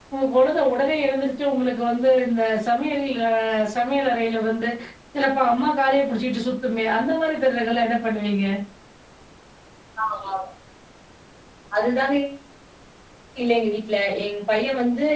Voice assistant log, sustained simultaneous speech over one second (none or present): none